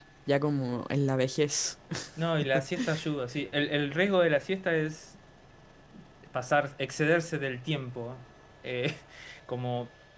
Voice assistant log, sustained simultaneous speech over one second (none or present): none